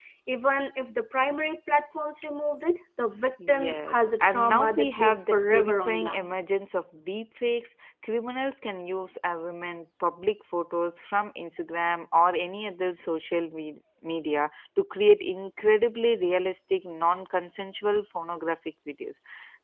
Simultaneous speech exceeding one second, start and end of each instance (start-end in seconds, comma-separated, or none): 3.5-6.4